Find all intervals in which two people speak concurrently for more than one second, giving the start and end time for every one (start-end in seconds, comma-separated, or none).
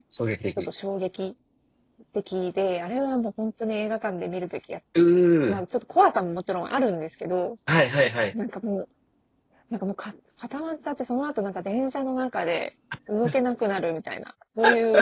none